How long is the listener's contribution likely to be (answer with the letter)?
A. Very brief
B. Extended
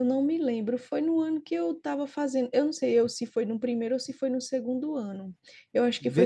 B